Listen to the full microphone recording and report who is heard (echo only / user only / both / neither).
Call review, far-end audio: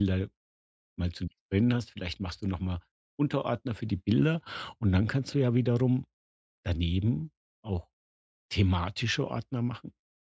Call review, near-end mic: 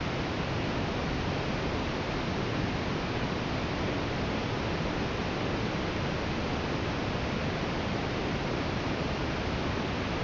neither